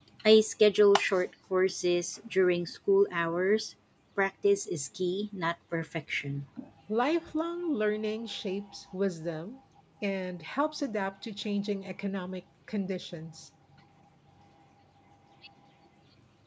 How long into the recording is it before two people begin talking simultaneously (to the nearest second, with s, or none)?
none